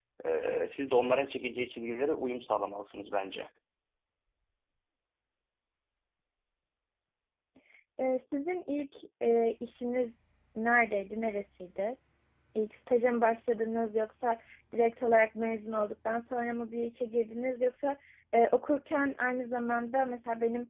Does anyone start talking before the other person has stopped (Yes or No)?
No